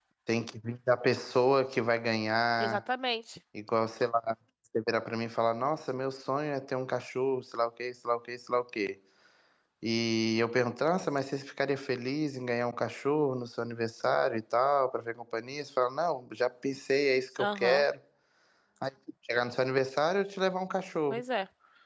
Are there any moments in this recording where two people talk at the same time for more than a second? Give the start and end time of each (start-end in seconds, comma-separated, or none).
none